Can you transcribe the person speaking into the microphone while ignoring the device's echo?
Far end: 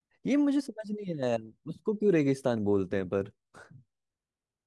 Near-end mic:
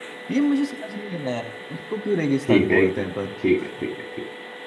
ठीक है एकदम ठीक है ठीक है ठीक

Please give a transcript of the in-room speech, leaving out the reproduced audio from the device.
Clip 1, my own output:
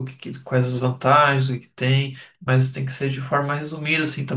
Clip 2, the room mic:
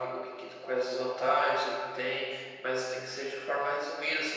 none

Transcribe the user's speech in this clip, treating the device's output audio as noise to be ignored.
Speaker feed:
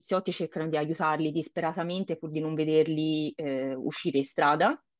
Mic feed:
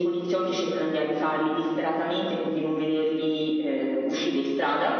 none

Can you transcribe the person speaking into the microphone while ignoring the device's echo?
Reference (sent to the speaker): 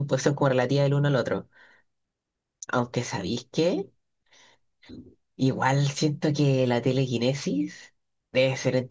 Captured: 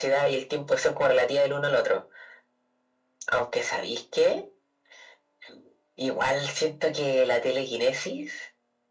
none

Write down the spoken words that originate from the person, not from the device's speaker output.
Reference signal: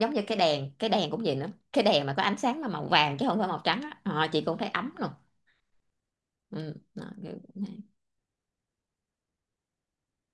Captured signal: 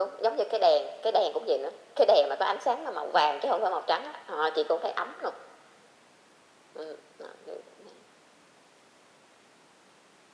none

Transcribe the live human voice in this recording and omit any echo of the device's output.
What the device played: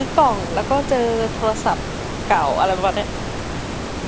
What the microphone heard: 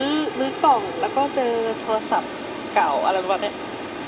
none

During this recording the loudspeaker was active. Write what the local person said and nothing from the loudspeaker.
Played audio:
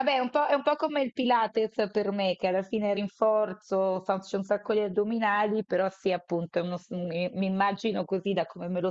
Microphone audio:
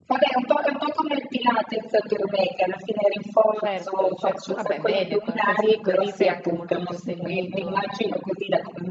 Certo, certo. Vabbè, bene, co- così, così sei anche molto più seguito.

